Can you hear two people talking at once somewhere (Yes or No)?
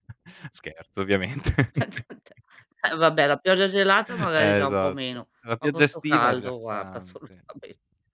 Yes